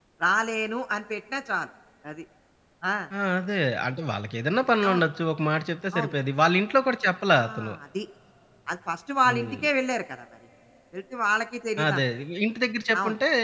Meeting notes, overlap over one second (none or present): none